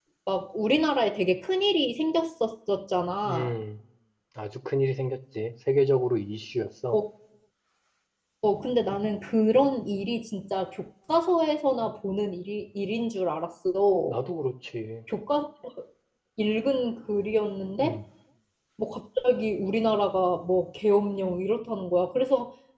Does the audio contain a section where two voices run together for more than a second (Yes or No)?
No